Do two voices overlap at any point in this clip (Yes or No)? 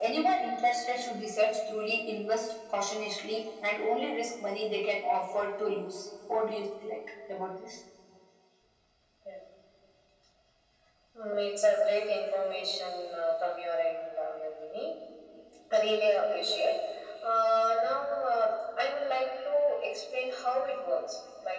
No